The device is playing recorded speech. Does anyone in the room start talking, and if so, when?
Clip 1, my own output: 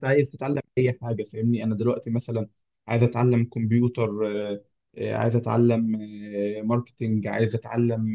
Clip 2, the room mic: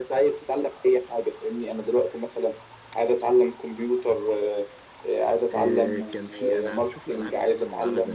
6 s

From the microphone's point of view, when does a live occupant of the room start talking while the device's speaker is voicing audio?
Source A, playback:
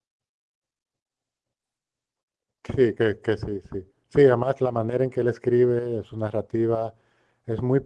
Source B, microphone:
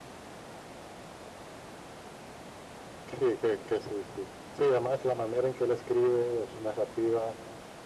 none

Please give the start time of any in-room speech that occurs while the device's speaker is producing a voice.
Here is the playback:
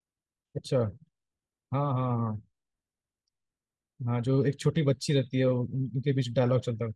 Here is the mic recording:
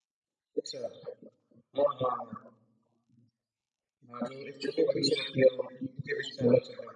none

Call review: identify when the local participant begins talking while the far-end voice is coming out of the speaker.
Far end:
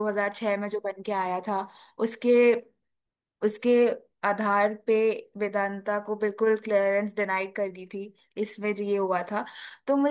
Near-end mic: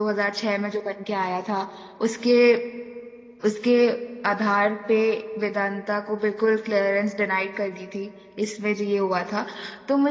none

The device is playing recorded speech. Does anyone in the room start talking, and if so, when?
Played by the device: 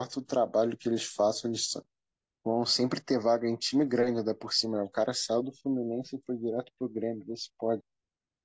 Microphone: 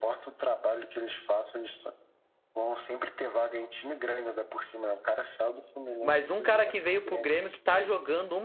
6 s

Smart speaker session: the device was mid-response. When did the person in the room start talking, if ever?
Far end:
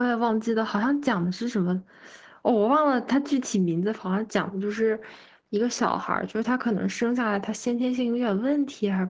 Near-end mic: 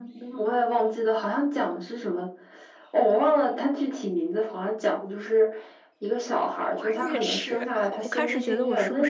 7 s

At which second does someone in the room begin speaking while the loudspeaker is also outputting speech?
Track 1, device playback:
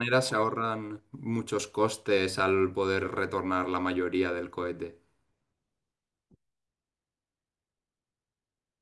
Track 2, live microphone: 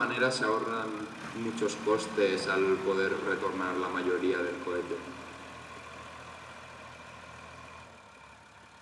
none

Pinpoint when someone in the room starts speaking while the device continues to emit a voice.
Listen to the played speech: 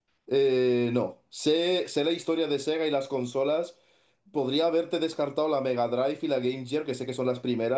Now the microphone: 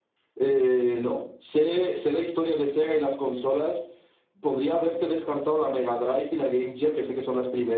none

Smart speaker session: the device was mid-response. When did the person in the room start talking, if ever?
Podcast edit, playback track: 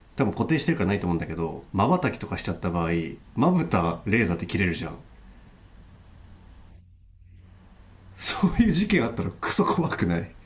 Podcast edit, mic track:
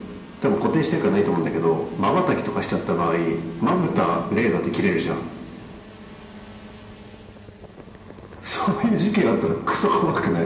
none

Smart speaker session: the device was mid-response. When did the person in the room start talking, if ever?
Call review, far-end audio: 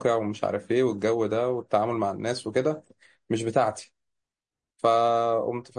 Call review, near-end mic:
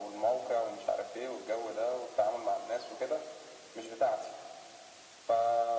none

